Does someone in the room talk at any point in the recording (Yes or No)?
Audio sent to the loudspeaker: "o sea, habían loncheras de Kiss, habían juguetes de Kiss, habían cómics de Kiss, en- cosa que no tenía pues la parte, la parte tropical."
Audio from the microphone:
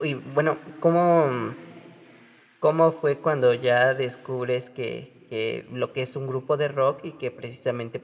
Yes